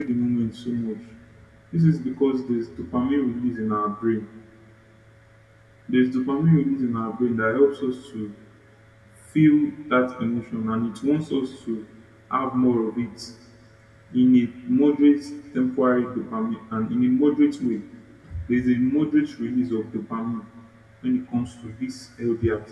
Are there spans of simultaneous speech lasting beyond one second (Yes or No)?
No